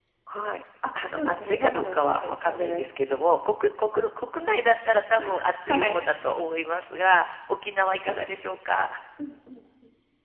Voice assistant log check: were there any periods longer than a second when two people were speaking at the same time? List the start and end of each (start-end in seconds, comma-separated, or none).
1.1-2.8